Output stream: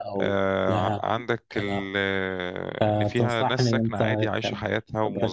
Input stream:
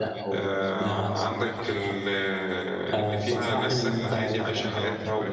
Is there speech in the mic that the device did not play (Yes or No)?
Yes